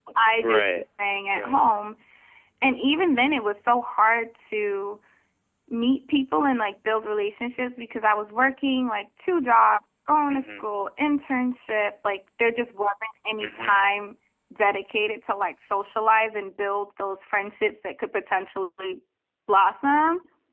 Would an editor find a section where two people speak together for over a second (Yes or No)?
No